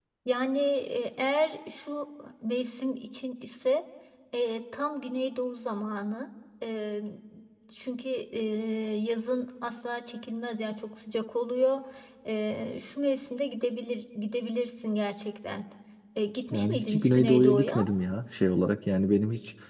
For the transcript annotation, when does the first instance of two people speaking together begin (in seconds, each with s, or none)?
16.5 s